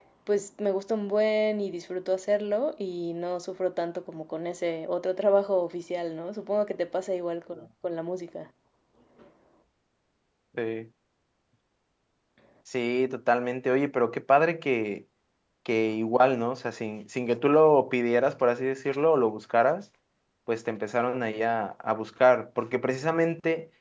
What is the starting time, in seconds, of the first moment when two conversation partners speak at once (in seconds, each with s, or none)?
none